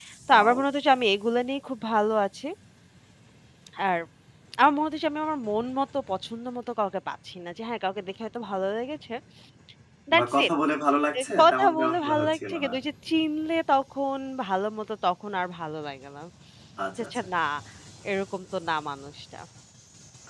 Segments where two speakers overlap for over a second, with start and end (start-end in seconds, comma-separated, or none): 11.2-12.7